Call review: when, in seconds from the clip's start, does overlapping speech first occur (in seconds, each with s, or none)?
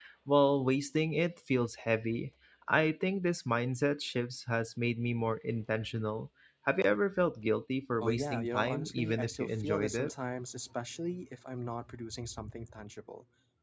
8.0 s